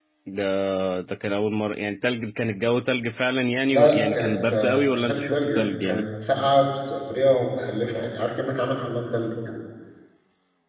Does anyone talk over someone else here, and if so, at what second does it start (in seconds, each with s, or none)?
3.7 s